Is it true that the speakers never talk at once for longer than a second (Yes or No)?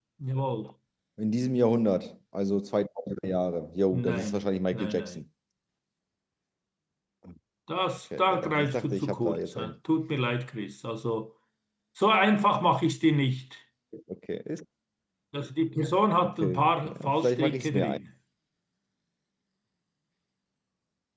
No